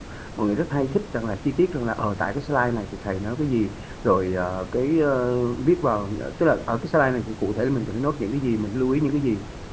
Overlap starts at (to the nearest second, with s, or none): none